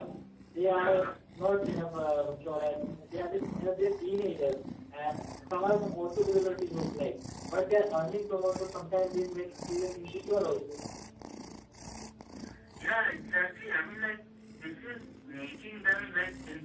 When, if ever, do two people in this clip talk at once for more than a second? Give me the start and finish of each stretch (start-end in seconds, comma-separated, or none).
none